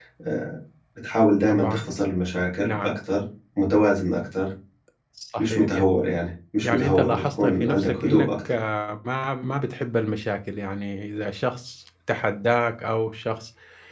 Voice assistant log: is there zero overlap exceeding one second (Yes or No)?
No